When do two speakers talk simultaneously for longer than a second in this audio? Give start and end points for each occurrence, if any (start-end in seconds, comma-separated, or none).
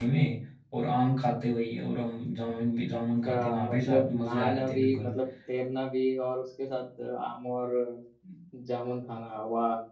3.2-5.1